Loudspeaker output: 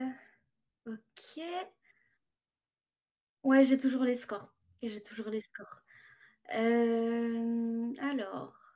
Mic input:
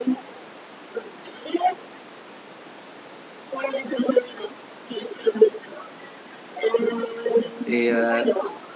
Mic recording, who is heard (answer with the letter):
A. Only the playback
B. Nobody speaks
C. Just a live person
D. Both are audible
D